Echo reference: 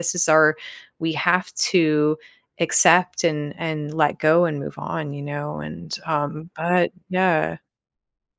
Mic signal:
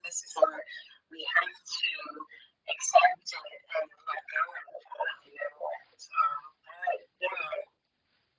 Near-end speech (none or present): none